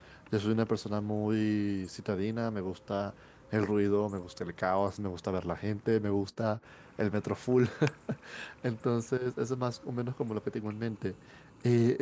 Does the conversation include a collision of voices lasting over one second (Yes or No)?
No